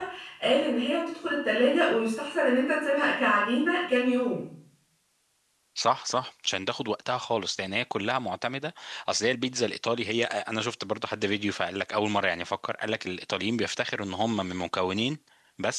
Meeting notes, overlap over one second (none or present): none